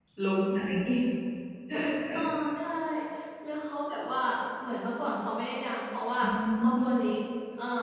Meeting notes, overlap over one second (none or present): none